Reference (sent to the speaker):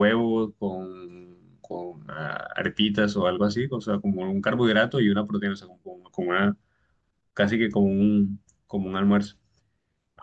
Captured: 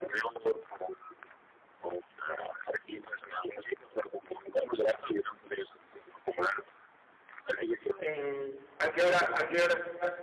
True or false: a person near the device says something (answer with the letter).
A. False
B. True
B